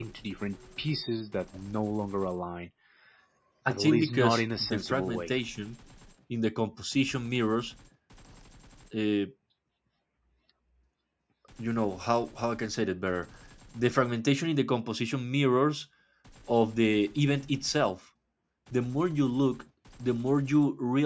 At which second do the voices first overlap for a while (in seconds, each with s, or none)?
3.7 s